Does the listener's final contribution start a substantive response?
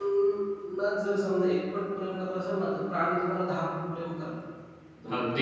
Yes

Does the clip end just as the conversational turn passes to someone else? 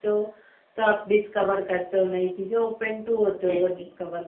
Yes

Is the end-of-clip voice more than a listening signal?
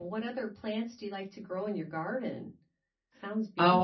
Yes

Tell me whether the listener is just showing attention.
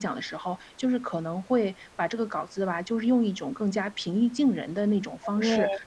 Yes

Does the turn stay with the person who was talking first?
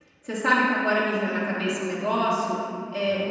Yes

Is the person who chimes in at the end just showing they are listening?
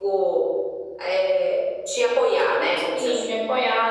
No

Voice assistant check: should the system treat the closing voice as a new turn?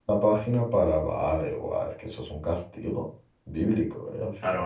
Yes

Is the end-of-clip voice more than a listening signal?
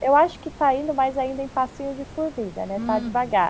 Yes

